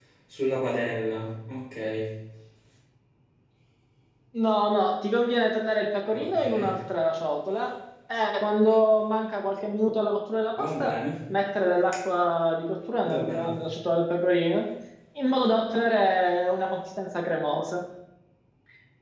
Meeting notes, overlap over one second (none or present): none